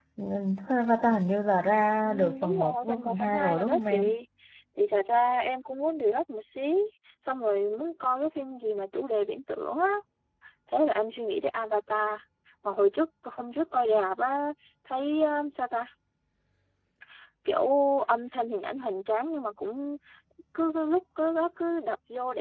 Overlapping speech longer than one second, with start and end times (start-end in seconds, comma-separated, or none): 2.0-4.0